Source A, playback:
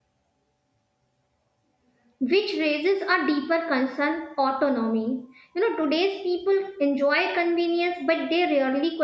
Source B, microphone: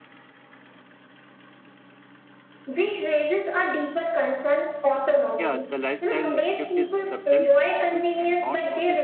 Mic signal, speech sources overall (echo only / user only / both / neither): both